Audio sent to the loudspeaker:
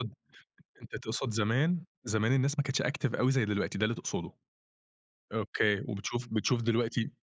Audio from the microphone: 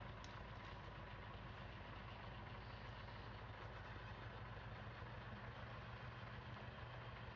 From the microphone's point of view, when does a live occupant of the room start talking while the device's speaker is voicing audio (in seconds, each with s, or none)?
none